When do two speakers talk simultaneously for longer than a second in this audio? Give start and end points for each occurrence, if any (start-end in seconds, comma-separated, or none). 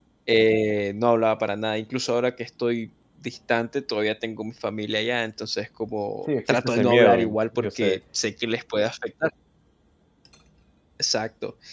6.5-8.0